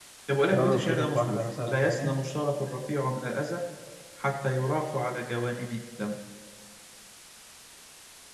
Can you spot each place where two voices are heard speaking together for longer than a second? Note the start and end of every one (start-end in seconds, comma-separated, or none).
0.5-2.2